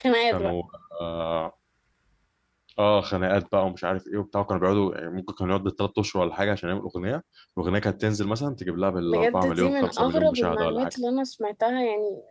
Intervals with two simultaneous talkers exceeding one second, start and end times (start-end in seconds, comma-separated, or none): 9.1-11.0